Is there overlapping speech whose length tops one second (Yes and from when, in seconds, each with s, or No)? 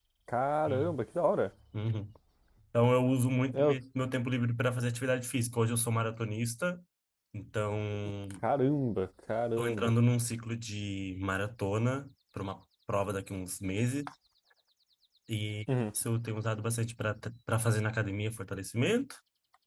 No